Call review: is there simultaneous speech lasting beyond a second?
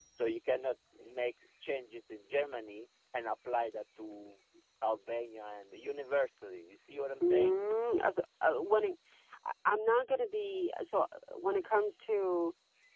No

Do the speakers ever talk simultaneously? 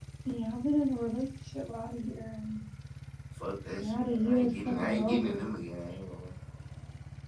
Yes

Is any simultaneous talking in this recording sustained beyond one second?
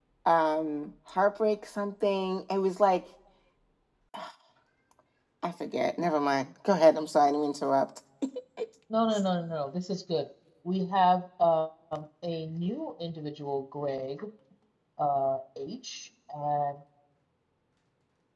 No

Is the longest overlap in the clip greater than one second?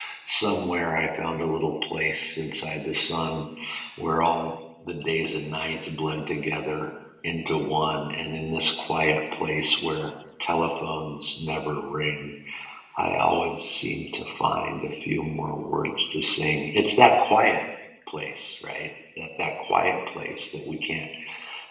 No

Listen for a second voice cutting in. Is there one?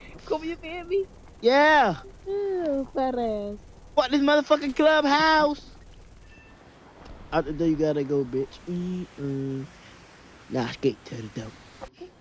No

